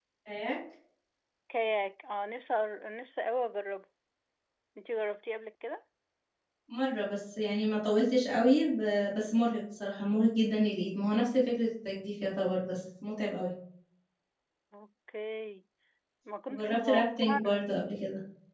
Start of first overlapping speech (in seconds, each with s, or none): 16.5 s